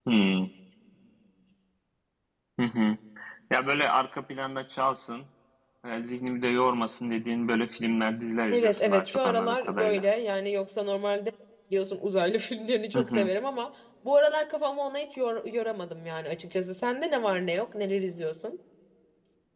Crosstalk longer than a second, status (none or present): present